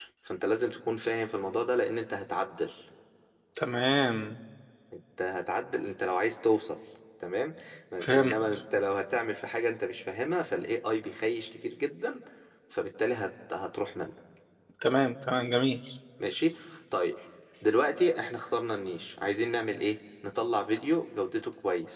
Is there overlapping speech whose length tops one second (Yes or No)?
No